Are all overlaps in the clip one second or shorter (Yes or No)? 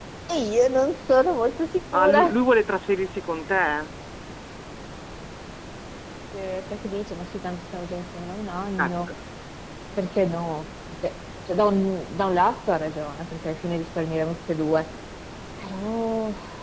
Yes